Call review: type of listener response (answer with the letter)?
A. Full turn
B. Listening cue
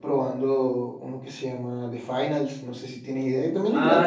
A